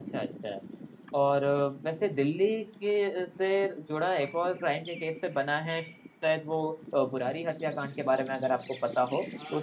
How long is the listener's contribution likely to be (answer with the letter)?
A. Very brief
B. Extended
B